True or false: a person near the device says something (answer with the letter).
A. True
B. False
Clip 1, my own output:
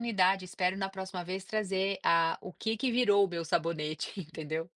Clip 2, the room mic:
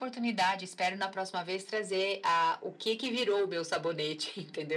B